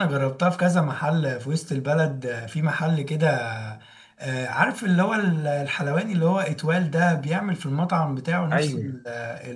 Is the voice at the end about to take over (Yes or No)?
No